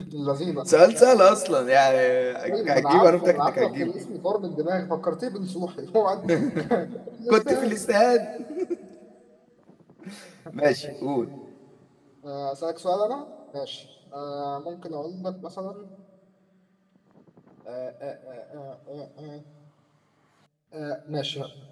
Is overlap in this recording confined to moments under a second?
No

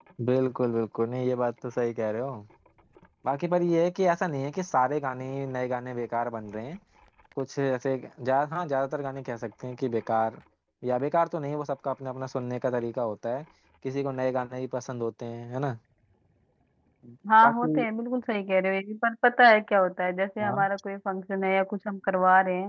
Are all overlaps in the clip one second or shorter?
Yes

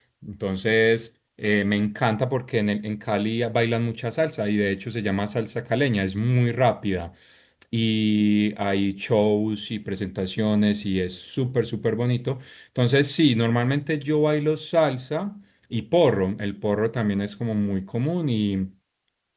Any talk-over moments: No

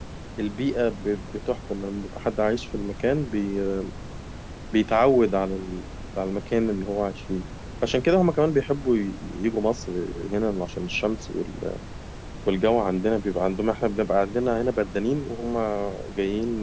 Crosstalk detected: No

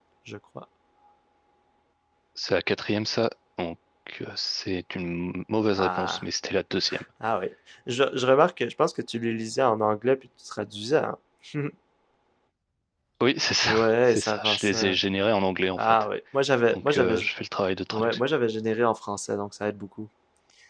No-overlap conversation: No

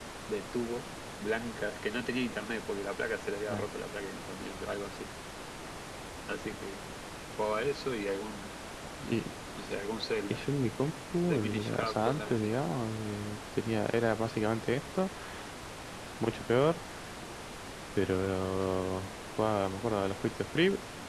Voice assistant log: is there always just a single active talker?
No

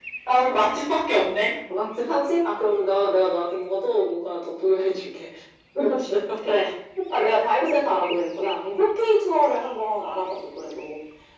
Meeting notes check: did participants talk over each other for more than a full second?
No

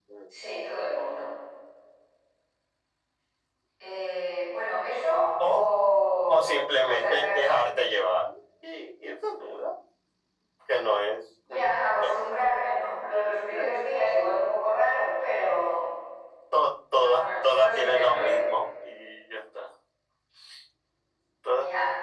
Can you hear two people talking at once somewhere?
Yes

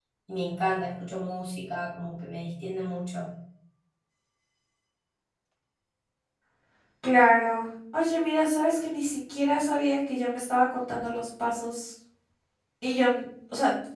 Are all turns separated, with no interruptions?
Yes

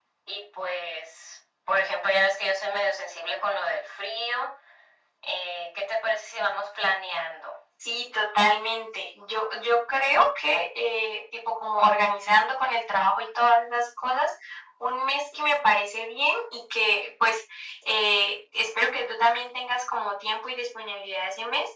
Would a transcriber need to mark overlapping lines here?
No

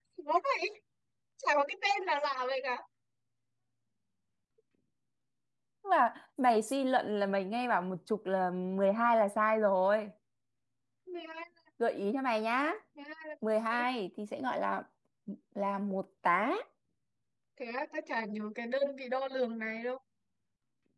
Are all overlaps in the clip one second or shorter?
Yes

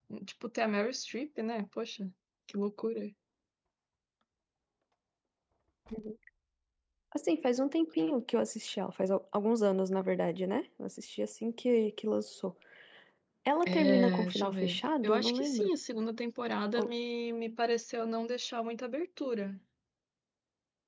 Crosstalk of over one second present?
Yes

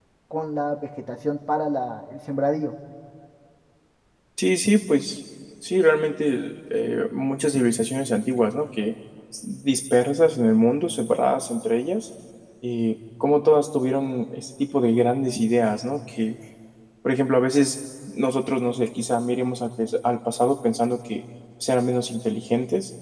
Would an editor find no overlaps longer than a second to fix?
Yes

